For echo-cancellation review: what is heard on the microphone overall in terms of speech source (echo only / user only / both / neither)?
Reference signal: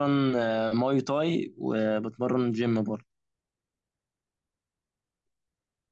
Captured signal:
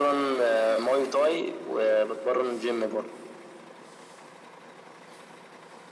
echo only